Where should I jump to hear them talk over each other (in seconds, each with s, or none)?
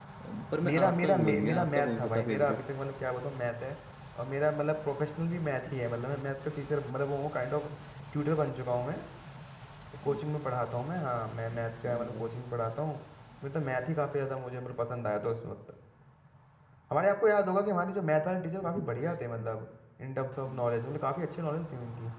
0.6 s